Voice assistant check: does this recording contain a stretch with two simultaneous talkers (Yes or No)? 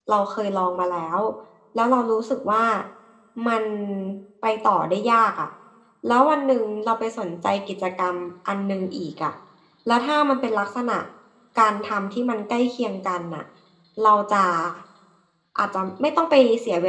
No